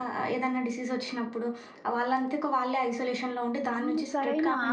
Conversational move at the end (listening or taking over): taking over